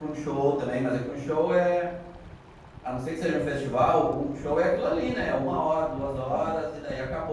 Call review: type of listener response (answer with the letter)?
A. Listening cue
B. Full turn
A